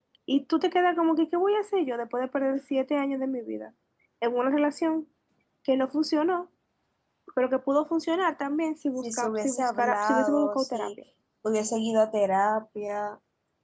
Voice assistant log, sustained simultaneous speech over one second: present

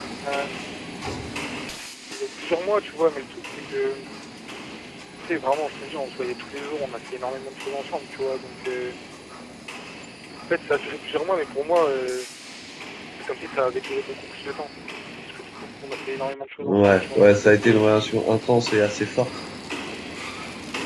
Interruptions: present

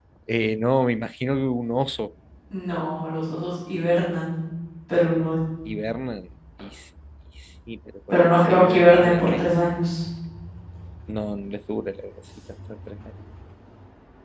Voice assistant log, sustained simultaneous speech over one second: present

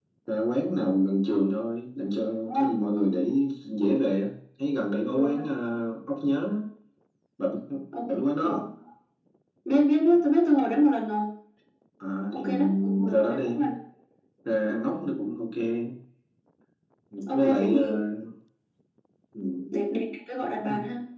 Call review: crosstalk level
present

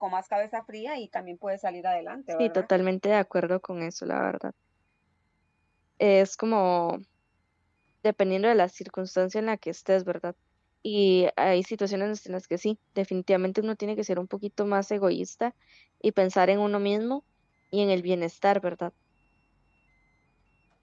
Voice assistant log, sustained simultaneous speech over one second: none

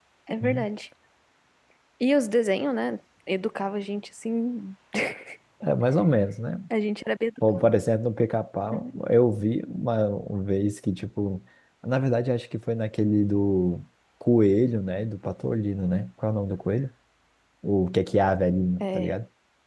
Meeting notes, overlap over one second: none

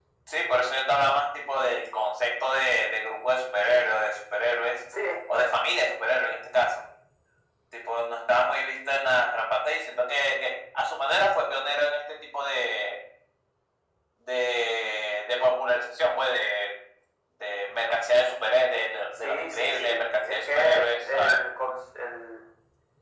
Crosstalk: present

